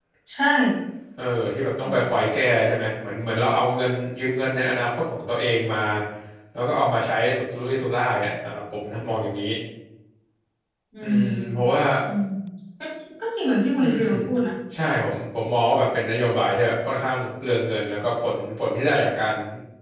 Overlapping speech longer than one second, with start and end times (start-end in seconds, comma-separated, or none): none